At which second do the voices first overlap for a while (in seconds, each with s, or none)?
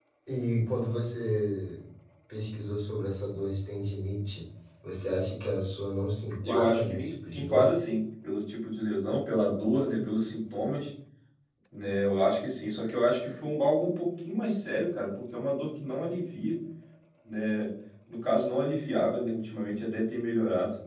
6.4 s